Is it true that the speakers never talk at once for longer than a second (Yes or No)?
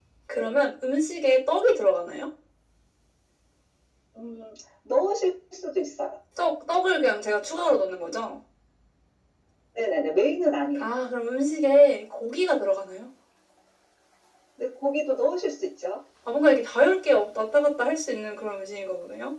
Yes